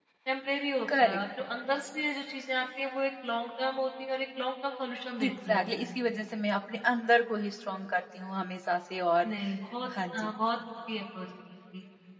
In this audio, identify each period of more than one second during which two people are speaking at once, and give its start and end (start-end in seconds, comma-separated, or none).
none